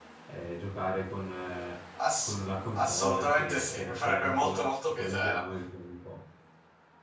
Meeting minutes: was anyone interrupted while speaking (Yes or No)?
Yes